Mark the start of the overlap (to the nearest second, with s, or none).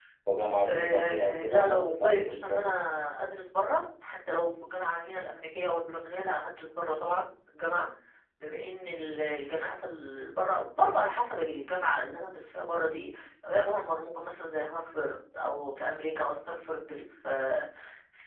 1 s